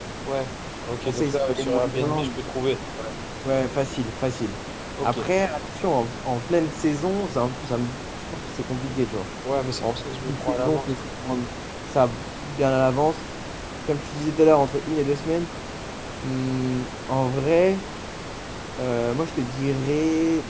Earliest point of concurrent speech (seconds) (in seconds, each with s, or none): 1.0 s